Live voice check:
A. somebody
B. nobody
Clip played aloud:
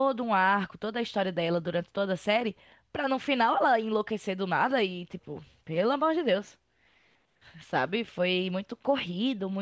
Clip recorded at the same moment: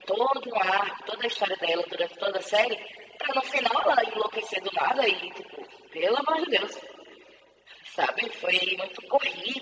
B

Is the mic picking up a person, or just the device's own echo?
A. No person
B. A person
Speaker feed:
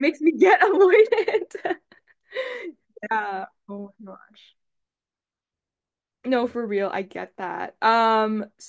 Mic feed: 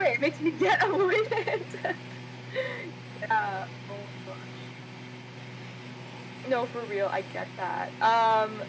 A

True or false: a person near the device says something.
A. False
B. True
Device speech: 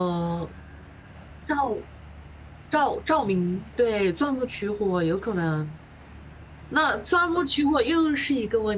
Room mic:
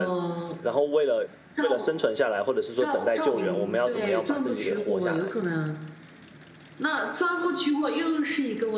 B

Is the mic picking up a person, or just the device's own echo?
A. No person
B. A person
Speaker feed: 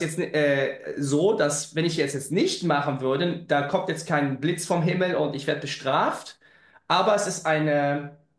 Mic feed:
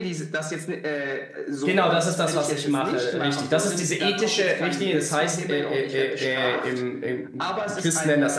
B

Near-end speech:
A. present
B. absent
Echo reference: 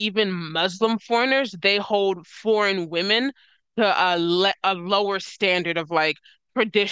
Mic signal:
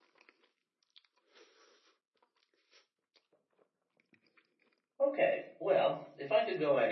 A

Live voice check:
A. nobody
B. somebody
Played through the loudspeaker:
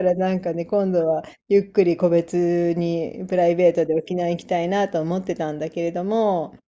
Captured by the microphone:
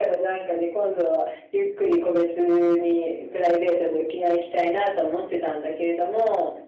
A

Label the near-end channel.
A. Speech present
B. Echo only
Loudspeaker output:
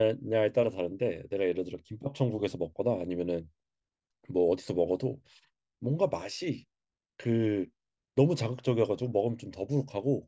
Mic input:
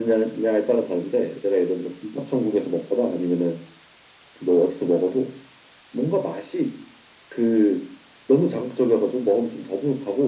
B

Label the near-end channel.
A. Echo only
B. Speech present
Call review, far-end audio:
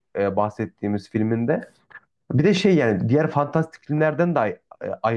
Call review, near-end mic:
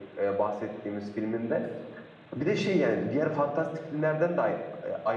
A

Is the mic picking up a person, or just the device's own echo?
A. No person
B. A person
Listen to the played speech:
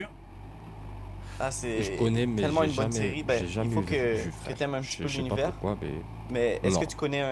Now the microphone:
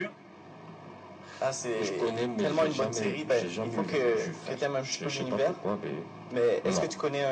A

